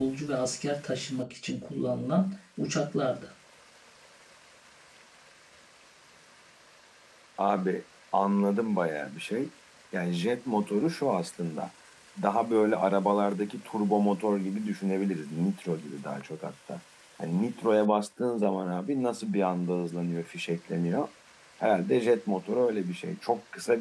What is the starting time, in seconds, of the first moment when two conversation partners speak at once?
none

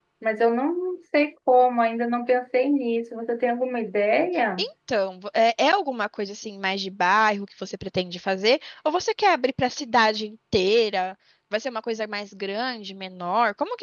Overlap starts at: none

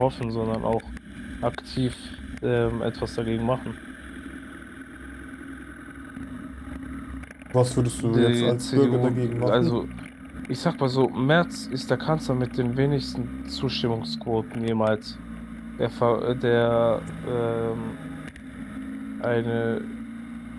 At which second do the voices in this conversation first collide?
8.0 s

